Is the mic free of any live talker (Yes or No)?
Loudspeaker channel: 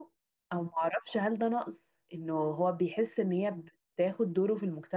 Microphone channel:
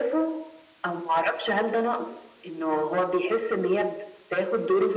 Yes